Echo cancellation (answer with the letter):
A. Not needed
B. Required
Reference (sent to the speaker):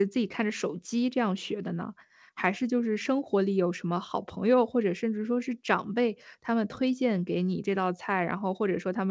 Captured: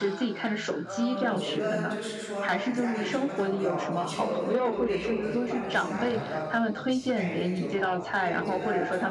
B